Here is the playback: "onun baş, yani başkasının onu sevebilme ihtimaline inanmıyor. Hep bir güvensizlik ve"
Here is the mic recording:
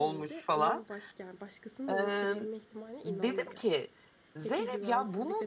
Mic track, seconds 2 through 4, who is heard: both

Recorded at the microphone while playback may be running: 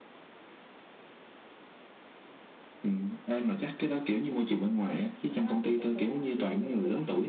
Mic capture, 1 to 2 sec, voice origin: neither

